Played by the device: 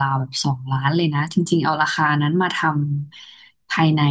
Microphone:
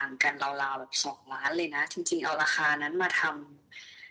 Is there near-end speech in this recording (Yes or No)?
No